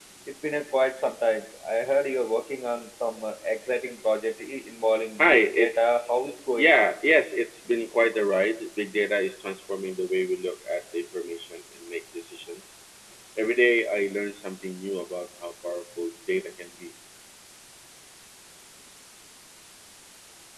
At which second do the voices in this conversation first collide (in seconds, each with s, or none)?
5.2 s